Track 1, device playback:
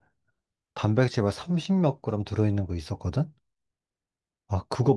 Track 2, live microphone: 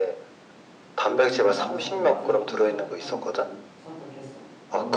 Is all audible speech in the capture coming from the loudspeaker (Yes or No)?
No